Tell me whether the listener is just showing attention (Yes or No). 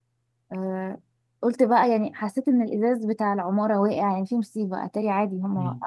No